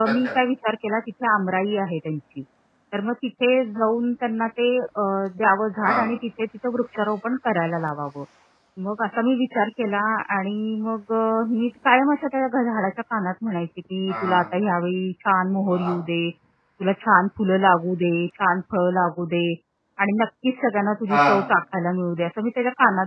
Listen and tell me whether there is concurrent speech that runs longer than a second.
No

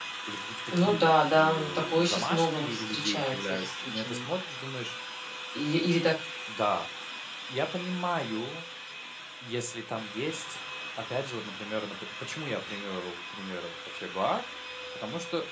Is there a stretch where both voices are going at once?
Yes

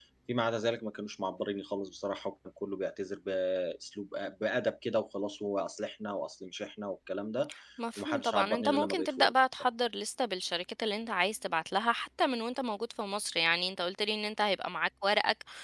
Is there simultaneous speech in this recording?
Yes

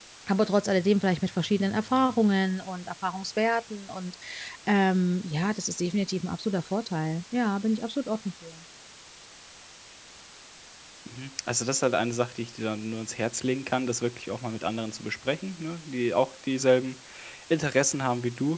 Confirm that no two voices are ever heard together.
Yes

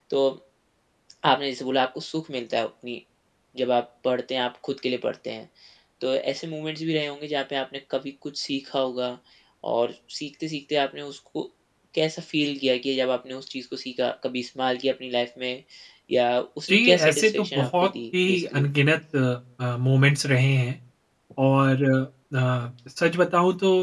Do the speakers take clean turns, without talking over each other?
No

